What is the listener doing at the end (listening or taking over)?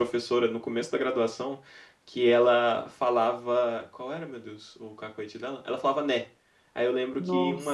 listening